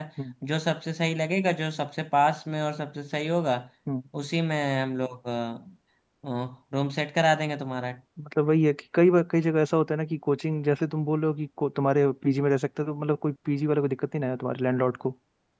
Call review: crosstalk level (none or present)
none